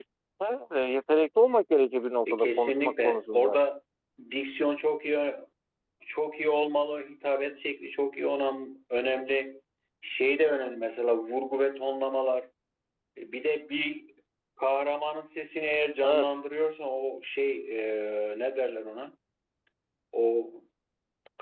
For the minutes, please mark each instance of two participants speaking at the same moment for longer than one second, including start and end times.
2.3-3.6

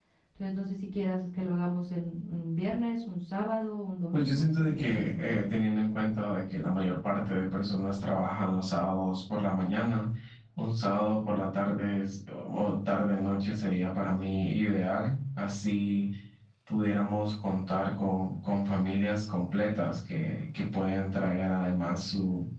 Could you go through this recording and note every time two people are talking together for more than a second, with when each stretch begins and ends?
4.1-5.4

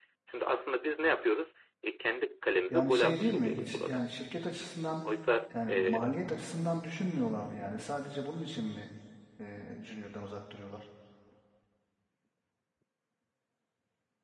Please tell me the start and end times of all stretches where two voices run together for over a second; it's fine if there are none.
2.7-4.0

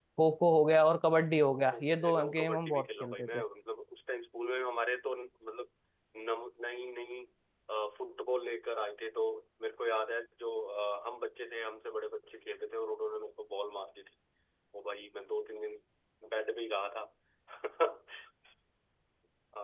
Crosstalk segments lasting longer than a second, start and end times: 1.7-3.4

